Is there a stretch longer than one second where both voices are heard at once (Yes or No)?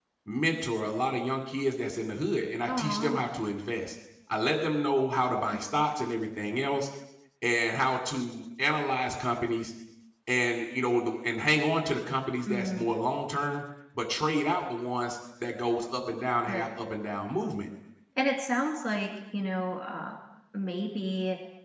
No